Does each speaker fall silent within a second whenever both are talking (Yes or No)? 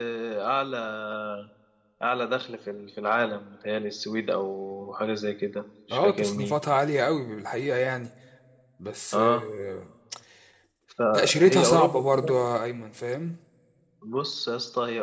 No